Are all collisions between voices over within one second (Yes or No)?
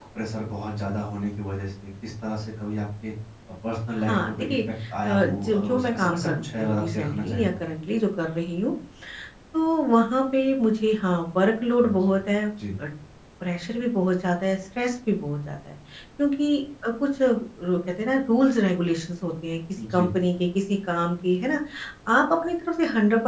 No